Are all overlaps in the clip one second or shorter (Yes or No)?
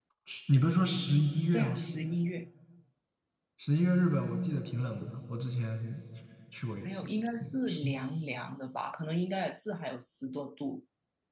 Yes